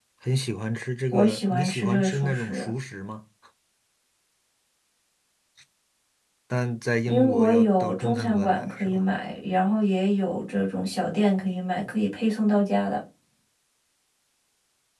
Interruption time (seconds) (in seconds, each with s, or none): 1.1 s